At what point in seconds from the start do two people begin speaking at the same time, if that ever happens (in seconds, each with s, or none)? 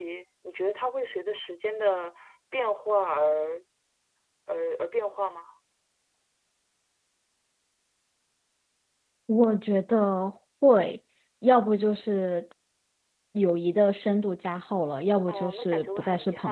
15.3 s